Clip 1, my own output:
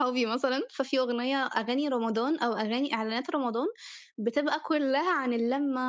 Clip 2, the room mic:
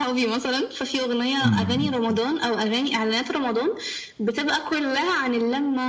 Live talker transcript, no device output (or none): إمم، إمم، إمم.